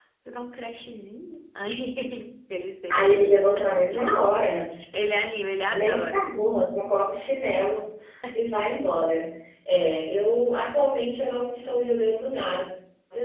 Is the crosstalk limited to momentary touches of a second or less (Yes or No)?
Yes